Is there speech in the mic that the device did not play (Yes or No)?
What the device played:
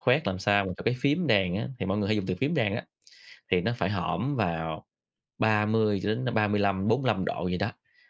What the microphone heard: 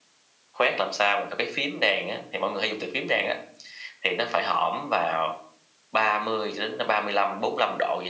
No